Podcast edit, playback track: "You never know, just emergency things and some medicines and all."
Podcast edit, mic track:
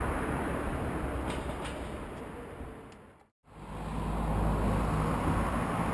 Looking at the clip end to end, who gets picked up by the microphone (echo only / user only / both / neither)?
neither